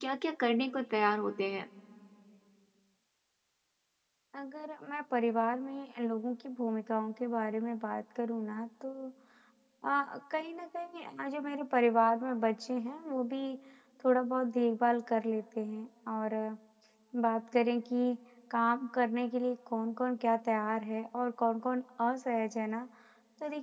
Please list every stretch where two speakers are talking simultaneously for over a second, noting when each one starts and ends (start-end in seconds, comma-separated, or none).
none